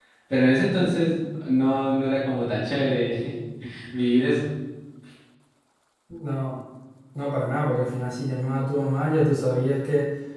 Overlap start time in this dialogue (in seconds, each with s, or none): none